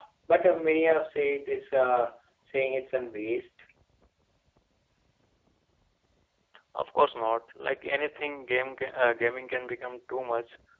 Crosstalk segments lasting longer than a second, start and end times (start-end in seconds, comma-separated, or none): none